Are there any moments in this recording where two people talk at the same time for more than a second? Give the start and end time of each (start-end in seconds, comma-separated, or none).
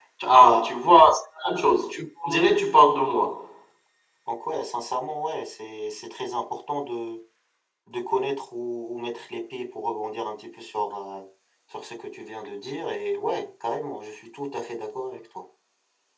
none